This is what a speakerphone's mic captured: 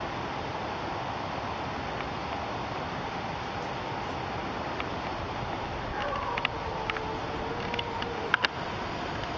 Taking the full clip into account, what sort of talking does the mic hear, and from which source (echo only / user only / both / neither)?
neither